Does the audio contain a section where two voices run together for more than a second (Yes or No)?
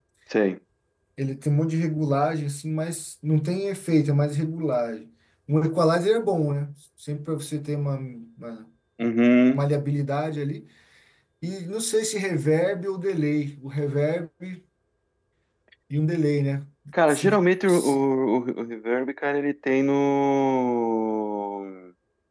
No